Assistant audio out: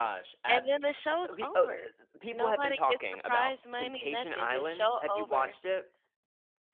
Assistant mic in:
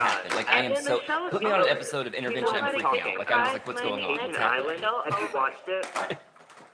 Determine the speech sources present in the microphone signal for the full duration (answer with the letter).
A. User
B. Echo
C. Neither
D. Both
D